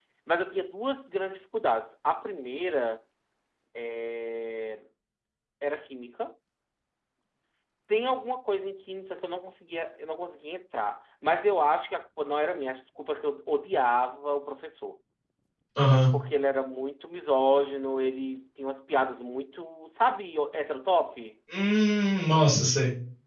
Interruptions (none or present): none